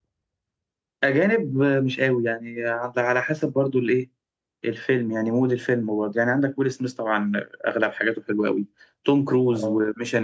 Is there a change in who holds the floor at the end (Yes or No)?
No